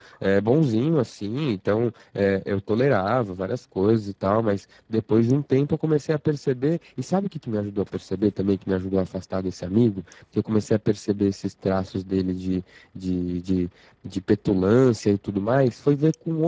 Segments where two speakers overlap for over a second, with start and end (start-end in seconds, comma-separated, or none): none